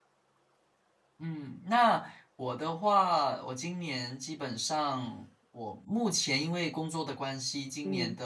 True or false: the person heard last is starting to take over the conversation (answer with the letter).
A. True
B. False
B